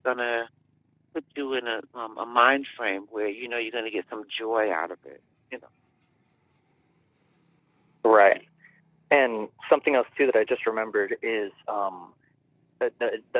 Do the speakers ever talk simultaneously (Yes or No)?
No